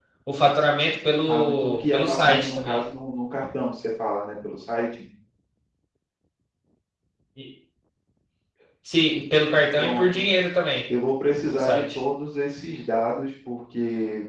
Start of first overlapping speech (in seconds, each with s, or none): 1.3 s